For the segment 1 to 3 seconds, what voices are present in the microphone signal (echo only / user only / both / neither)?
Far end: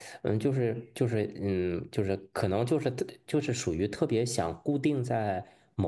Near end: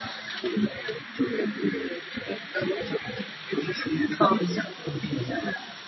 echo only